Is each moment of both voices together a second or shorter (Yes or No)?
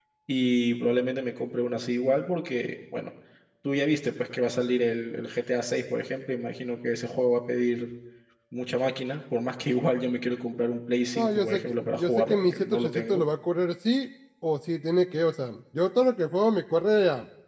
No